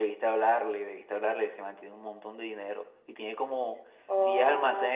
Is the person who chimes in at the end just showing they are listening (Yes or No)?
Yes